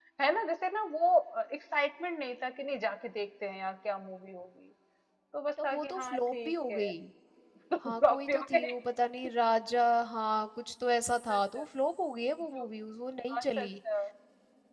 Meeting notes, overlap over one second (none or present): present